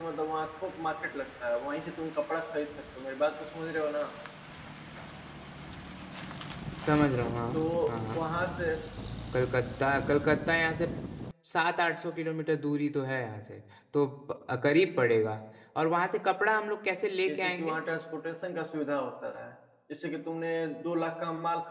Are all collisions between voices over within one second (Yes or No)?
Yes